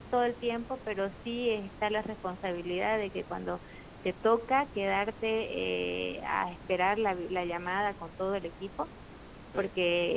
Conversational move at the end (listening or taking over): listening